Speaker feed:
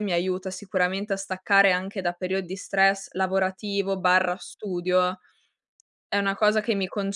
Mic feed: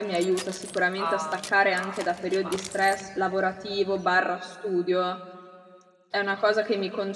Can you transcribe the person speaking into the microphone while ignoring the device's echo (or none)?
a mhmm, a insomma